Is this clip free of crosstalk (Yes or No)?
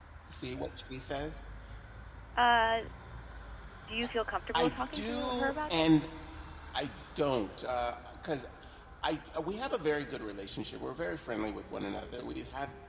No